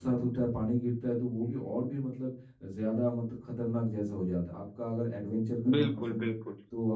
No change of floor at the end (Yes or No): Yes